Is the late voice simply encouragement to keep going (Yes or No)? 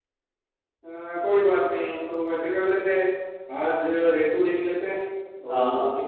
Yes